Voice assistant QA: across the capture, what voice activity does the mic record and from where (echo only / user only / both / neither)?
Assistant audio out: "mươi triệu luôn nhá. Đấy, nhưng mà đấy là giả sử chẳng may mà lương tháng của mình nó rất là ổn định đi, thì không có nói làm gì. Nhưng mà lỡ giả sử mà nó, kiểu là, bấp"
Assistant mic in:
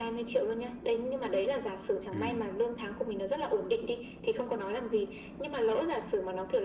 both